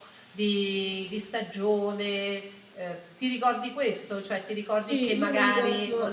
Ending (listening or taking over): taking over